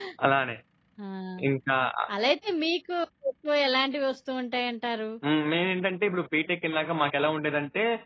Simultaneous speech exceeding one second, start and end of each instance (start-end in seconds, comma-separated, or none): none